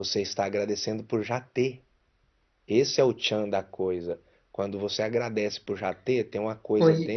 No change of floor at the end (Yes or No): Yes